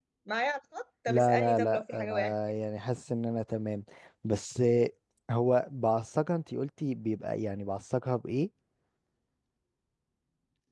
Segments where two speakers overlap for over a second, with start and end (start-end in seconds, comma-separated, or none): 1.1-2.3